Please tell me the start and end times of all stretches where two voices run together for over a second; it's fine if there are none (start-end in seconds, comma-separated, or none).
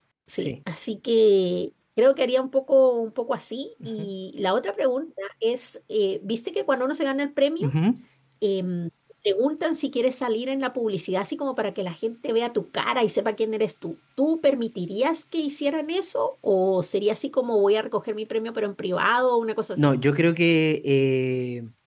none